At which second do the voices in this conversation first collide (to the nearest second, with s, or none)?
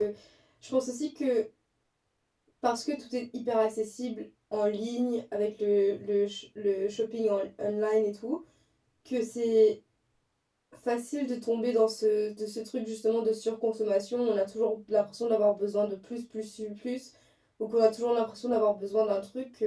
none